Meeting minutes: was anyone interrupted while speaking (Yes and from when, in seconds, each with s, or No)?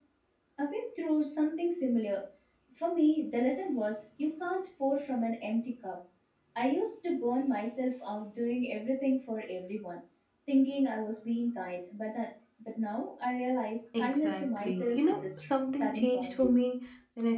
Yes, from 13.9 s